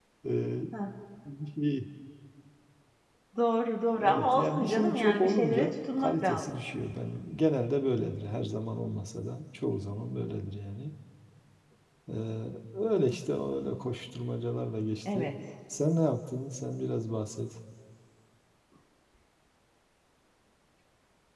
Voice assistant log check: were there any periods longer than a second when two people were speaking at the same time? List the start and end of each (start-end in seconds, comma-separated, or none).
4.0-6.6